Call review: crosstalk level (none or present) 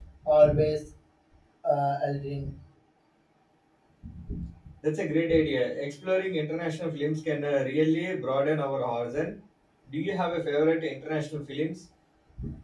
none